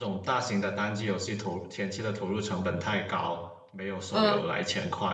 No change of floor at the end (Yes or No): Yes